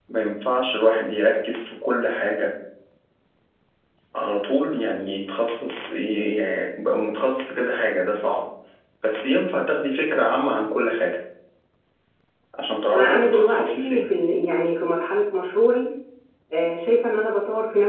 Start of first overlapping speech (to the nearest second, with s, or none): 13 s